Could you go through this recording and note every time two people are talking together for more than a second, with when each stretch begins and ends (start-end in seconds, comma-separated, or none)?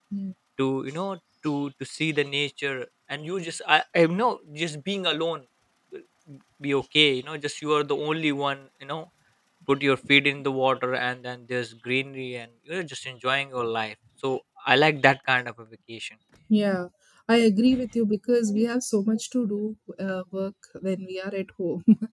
none